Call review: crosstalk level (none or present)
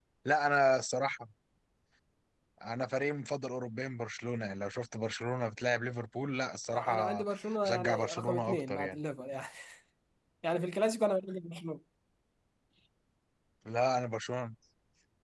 present